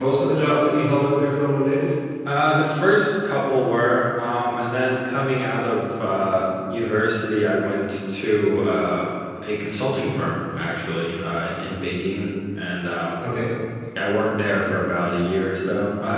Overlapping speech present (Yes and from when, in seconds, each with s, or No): No